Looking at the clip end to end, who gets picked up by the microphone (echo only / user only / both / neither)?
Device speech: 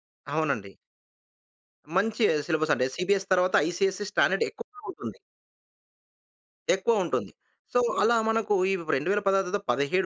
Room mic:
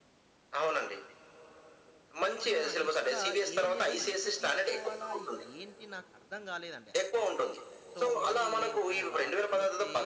both